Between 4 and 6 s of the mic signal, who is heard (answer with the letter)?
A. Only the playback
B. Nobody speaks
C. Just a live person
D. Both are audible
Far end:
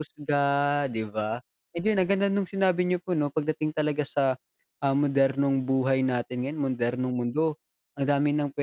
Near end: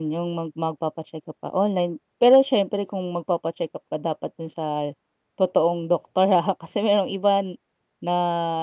C